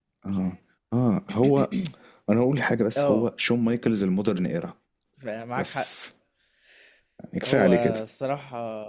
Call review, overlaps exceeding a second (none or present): none